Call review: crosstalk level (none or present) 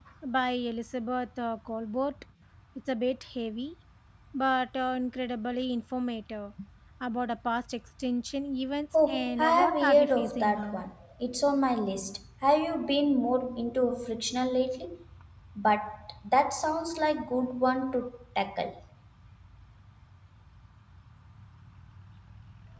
present